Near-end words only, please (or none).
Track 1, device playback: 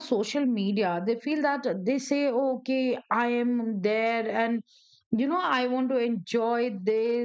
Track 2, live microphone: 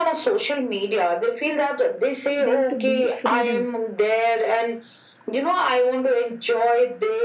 them to be freedom